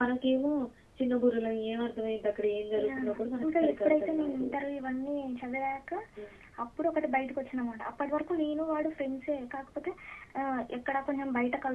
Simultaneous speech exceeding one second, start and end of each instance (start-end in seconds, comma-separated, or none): 2.8-4.5